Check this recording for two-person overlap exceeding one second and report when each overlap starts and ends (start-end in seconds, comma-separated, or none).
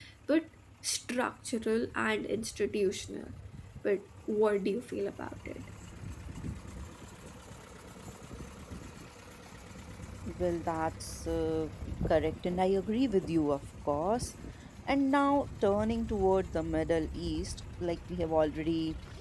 none